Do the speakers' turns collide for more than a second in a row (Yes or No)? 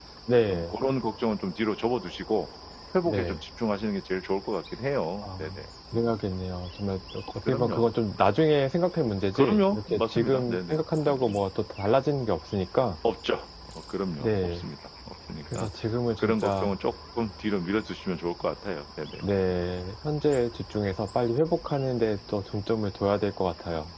Yes